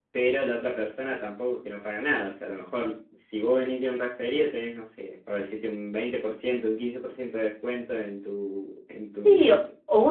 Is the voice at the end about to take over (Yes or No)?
Yes